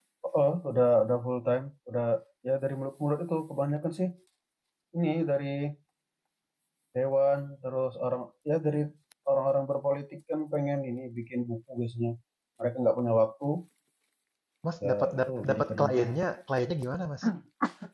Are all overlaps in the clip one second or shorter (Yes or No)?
No